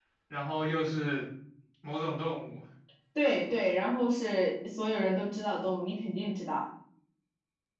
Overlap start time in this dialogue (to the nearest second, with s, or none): none